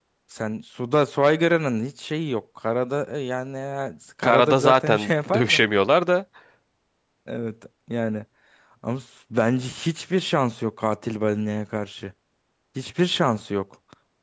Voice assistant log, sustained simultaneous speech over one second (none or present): present